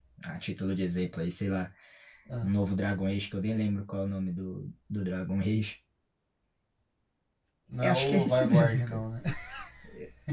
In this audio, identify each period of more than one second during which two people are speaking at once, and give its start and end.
7.8-9.0

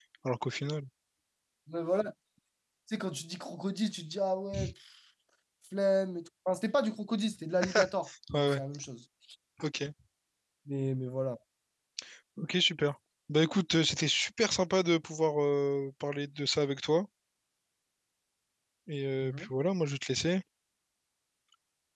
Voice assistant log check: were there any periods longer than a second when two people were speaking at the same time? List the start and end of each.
none

